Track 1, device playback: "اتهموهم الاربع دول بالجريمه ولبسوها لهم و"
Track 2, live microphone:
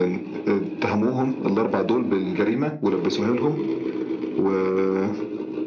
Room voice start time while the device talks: none

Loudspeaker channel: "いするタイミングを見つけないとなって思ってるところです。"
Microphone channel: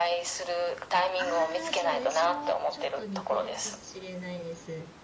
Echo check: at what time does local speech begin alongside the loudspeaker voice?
1.2 s

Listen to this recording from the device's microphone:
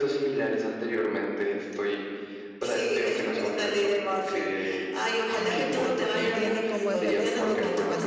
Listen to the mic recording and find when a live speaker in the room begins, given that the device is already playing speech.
5.4 s

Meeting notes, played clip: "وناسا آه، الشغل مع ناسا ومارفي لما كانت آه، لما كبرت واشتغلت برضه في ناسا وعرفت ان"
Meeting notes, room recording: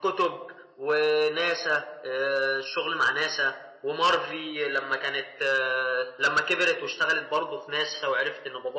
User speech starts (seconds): none

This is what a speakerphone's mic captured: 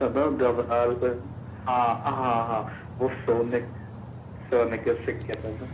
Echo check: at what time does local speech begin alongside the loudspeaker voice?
none

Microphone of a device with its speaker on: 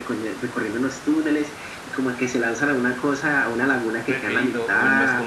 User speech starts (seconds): 4.1 s

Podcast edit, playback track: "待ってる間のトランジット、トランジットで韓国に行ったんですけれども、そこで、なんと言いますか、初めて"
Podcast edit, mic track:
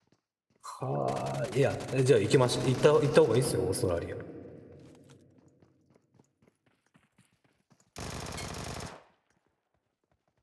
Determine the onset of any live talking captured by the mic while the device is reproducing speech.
0.6 s

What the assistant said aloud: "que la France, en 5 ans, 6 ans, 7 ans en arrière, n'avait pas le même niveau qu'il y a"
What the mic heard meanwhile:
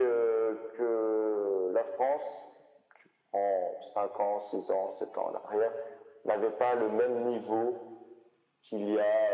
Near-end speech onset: none

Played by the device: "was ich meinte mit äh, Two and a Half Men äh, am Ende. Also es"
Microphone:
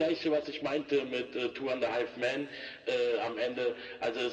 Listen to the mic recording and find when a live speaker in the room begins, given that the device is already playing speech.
none

